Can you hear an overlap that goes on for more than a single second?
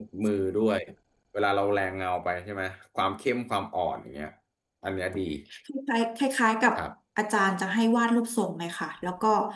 No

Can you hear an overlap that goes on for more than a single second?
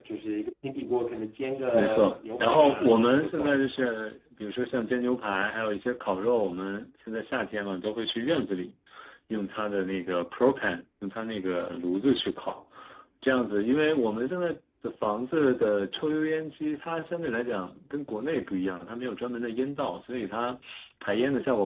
Yes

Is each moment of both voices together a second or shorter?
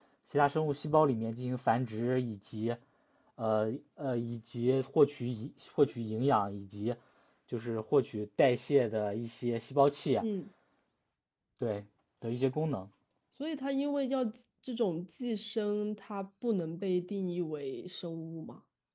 Yes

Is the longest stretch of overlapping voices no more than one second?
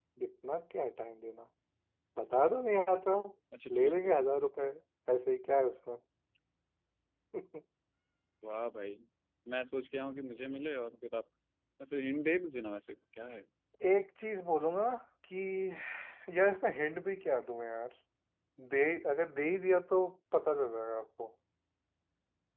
Yes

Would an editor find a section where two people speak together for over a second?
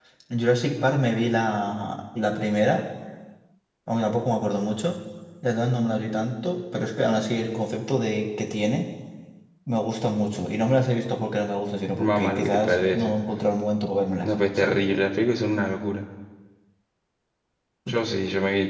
Yes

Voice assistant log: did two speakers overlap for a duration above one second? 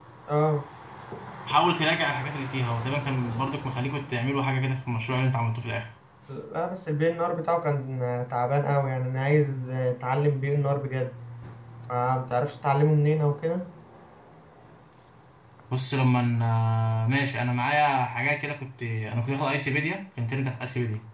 No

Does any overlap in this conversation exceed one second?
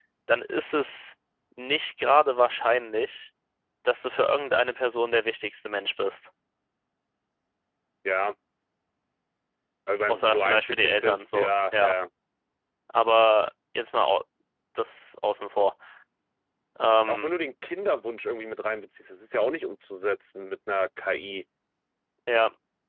Yes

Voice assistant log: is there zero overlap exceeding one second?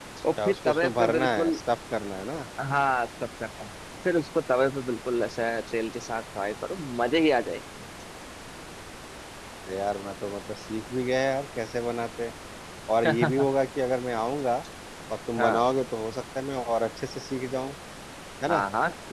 No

